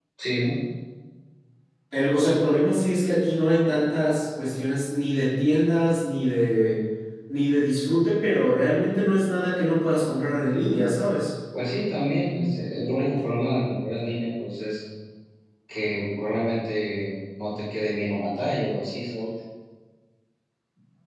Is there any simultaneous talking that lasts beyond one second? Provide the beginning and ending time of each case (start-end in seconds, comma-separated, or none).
none